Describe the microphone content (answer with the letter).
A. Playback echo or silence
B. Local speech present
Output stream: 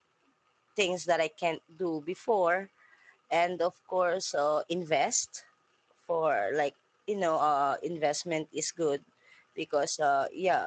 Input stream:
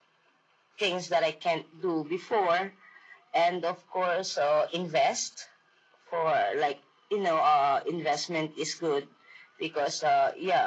A